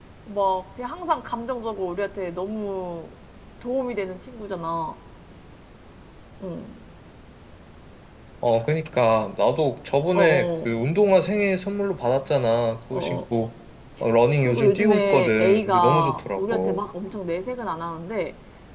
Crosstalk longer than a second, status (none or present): present